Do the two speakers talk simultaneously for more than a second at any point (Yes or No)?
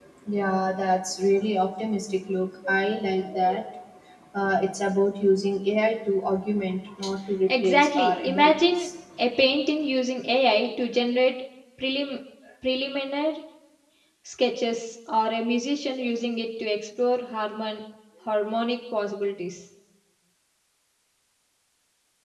Yes